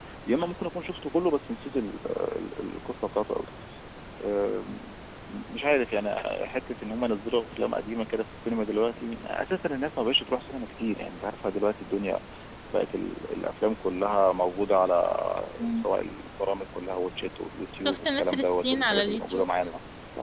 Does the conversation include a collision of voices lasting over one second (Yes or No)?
Yes